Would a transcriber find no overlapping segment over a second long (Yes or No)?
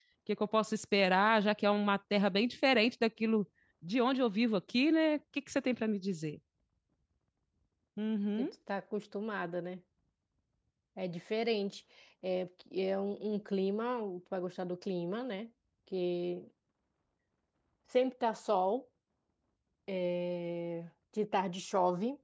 Yes